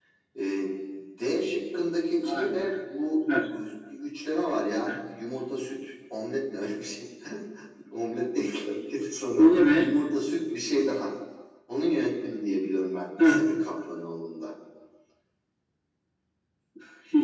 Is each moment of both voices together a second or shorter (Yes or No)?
Yes